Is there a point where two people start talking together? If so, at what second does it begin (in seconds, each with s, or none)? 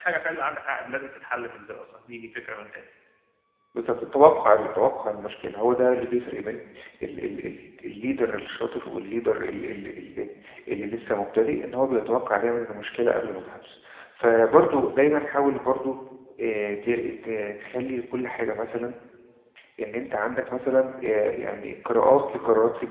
none